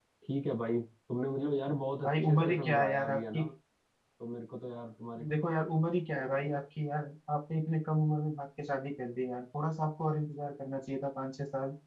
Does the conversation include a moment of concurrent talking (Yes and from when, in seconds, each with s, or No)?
Yes, from 2.0 s